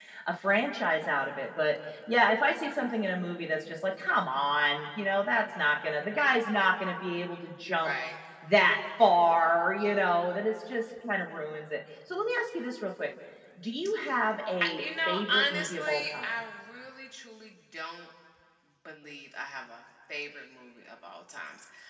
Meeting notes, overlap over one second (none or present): present